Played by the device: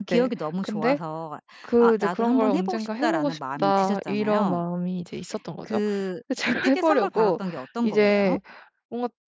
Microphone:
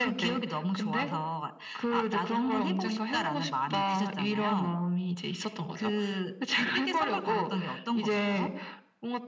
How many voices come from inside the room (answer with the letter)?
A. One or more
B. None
B